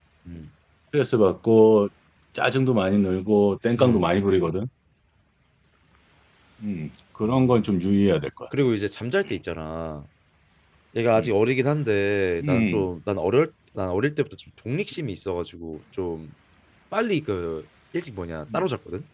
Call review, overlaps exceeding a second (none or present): none